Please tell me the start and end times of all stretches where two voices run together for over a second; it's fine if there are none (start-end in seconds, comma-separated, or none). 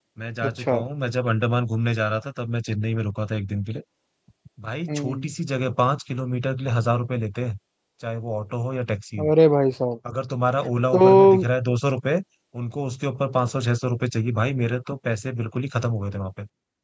none